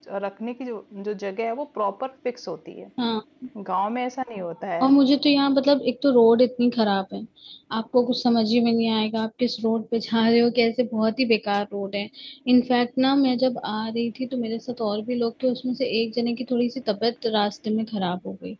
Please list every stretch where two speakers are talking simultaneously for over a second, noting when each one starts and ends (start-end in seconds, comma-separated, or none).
none